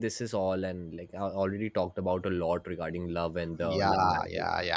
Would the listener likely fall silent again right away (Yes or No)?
No